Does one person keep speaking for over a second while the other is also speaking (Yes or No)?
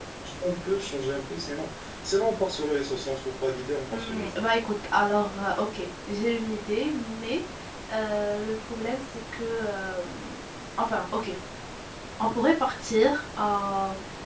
No